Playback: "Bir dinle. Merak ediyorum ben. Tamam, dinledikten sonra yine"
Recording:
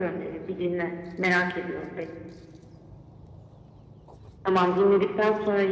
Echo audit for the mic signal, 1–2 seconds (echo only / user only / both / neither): echo only